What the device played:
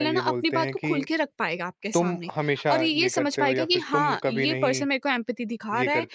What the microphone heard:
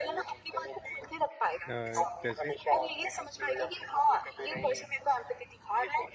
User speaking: Yes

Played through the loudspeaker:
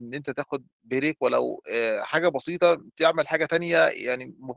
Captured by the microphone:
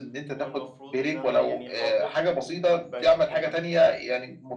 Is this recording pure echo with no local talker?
No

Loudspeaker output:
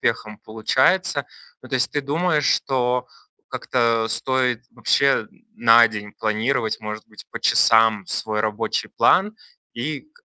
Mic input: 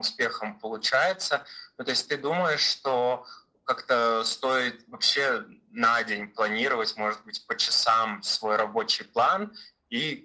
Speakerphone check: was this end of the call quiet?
Yes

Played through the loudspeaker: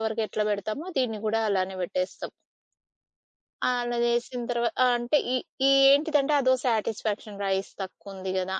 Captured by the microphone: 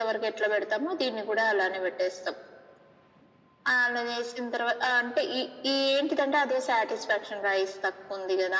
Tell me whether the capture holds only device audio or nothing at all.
Yes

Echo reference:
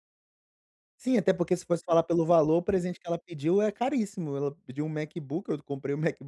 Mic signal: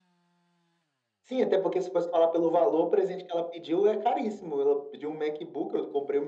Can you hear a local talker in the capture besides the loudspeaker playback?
No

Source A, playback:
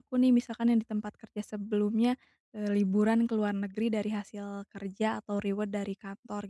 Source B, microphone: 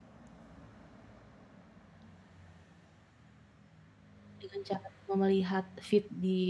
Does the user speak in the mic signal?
Yes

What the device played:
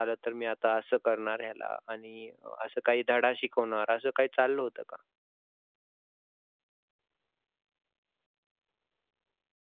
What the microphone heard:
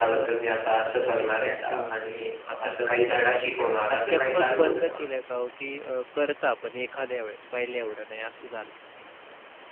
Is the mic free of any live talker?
No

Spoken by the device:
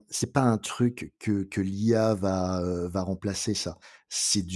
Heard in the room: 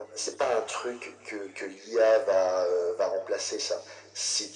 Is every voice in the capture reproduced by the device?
Yes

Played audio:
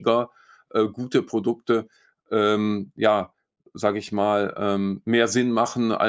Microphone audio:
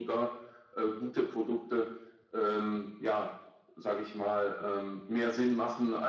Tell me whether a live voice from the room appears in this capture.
No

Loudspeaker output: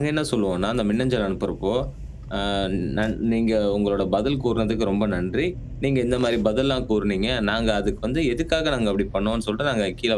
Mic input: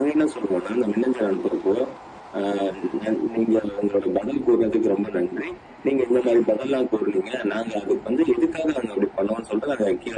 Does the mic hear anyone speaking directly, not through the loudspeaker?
No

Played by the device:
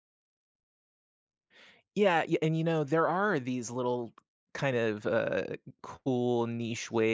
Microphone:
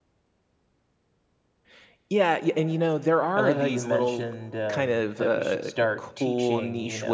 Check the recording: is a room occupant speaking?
Yes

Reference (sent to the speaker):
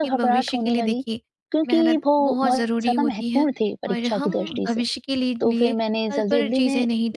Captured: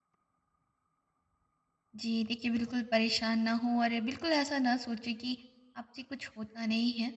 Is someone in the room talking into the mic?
Yes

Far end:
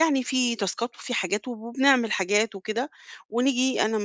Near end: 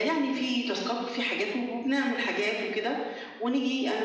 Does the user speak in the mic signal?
No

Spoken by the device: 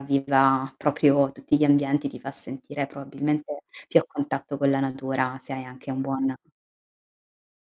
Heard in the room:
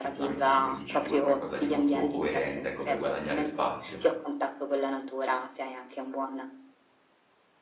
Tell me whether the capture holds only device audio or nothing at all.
No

